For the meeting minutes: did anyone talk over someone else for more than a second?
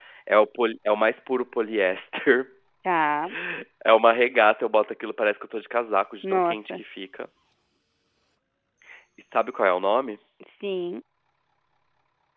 No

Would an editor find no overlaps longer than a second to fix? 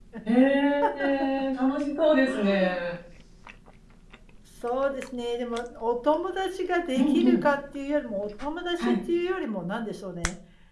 Yes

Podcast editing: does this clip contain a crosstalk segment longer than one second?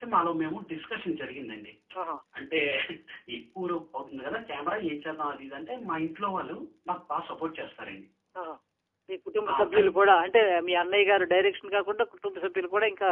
No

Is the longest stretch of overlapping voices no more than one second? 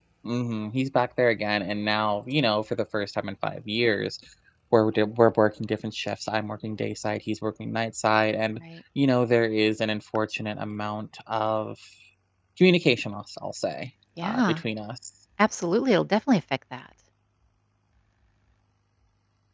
Yes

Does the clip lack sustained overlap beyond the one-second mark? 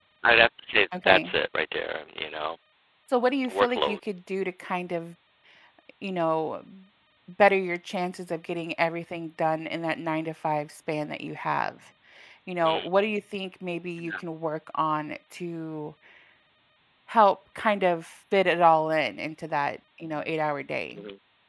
Yes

